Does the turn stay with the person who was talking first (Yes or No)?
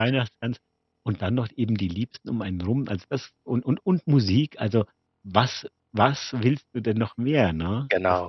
No